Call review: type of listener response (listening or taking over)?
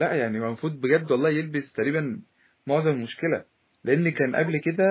listening